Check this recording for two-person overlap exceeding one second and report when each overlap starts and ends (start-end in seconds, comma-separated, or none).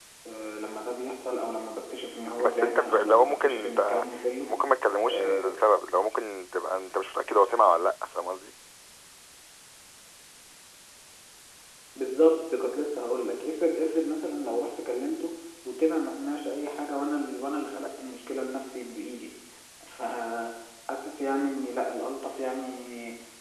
2.4-4.0